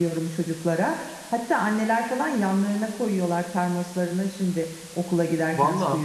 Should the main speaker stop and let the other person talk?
Yes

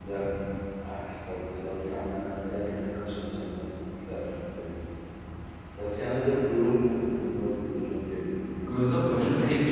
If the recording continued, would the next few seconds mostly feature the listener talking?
Yes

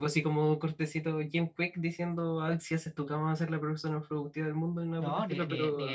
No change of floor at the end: No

